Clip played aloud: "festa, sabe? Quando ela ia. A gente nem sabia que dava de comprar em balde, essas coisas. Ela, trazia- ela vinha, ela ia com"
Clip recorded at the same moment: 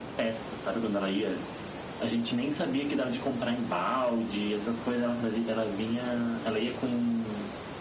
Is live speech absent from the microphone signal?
Yes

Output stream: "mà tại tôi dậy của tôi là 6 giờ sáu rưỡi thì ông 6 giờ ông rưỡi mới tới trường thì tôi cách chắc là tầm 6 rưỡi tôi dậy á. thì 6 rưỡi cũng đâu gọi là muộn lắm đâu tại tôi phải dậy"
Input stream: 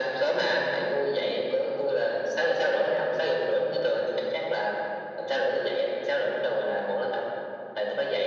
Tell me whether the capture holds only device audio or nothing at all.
Yes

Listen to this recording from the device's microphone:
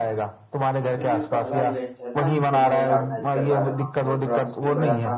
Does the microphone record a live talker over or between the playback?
Yes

